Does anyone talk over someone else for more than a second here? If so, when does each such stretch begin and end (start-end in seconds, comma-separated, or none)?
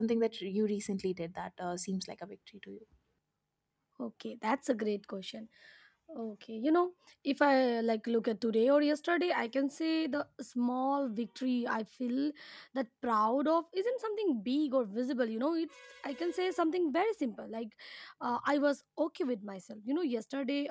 none